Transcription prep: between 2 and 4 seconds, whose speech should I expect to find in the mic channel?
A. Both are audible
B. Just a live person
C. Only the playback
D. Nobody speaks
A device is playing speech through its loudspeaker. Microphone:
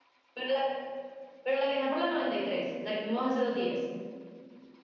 C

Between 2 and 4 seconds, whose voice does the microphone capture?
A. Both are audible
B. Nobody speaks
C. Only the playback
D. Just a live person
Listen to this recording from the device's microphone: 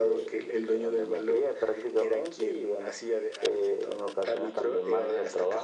C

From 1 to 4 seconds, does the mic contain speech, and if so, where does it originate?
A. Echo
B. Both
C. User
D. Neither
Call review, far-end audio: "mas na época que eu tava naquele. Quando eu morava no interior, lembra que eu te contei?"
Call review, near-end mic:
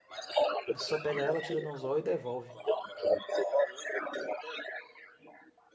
B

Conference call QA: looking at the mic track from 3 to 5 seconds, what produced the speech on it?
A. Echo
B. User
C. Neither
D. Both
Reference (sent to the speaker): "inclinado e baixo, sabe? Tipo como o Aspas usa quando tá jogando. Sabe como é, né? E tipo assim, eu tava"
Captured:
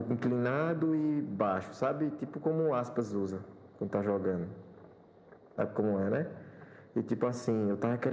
A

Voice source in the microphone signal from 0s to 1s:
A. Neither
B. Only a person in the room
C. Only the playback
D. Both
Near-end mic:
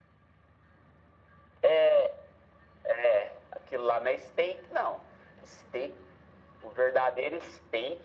A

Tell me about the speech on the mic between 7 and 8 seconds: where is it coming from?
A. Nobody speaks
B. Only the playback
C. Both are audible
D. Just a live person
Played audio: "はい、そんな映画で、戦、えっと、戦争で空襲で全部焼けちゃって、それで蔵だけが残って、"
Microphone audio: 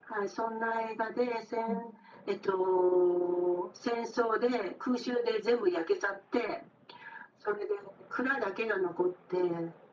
B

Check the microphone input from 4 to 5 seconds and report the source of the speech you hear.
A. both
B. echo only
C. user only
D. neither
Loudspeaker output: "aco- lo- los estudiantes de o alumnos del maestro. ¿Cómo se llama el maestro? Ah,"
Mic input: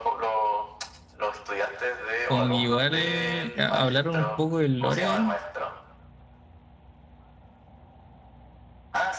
A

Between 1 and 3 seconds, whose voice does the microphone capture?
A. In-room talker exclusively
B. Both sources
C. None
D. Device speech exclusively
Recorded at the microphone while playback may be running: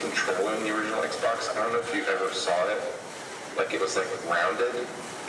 D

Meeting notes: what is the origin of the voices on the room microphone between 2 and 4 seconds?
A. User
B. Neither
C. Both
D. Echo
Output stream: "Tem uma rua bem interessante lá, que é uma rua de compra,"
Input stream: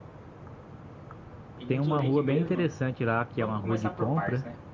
C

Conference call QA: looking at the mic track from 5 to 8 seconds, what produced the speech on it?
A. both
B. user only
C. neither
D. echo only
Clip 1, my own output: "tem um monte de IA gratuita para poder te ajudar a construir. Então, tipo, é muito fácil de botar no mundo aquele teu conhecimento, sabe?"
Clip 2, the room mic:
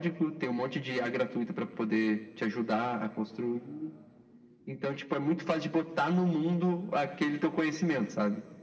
D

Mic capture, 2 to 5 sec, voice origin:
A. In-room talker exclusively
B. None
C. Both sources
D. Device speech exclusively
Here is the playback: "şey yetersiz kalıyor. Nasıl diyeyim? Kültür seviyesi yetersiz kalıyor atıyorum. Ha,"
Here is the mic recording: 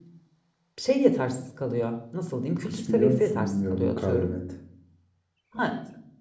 C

